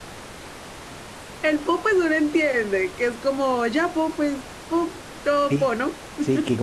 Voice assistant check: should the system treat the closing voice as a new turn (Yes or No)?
Yes